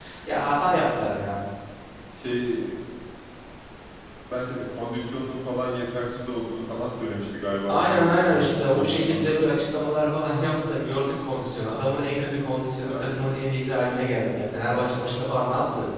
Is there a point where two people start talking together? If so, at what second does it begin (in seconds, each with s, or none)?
7.7 s